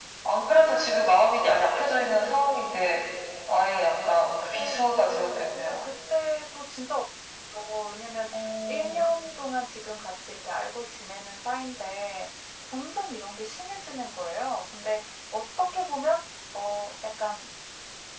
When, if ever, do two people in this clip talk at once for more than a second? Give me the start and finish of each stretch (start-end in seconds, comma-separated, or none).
4.5-5.7